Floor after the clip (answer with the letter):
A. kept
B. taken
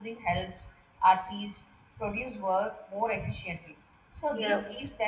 A